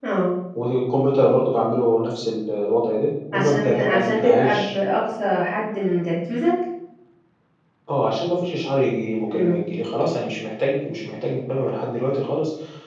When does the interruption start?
3 s

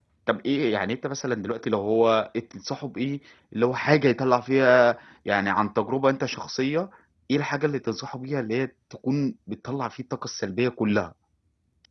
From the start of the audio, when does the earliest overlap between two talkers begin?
none

